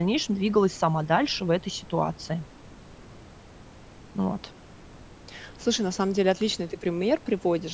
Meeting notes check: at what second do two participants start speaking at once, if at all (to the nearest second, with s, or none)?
none